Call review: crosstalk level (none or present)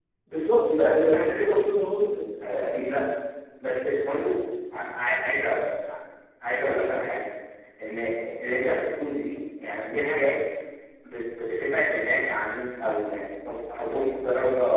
none